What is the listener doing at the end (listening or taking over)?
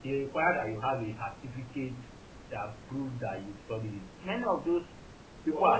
taking over